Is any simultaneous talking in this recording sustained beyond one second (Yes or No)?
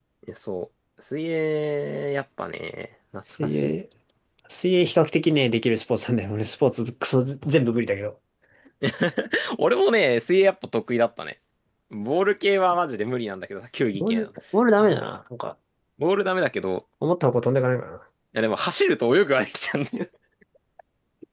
No